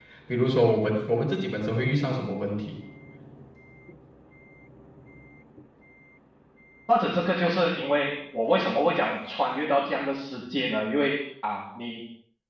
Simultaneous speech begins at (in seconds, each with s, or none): none